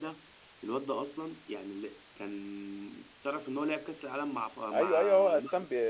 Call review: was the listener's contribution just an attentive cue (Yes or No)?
No